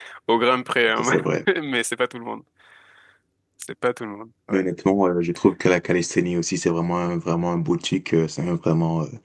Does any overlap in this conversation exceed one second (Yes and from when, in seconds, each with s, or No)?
No